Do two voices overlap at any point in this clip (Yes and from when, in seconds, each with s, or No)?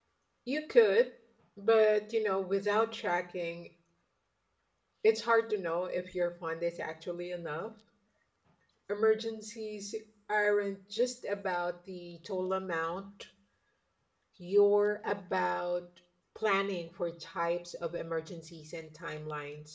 No